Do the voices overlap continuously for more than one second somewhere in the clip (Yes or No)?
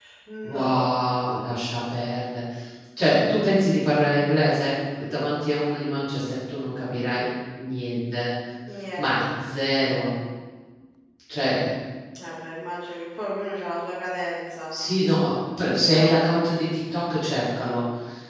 No